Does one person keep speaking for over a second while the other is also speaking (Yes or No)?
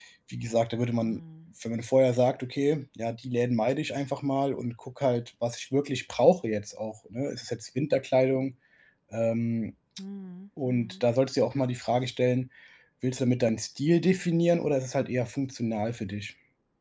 No